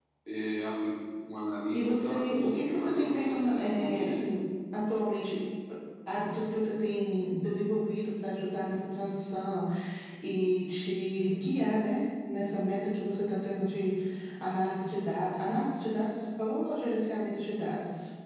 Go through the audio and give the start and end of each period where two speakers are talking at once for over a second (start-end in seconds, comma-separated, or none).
1.7-4.2